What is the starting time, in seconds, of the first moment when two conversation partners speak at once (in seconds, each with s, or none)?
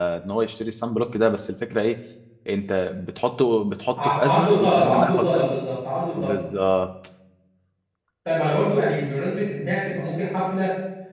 4.0 s